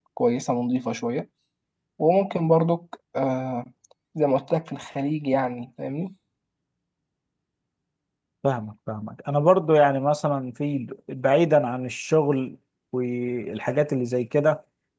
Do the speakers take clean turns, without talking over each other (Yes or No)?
Yes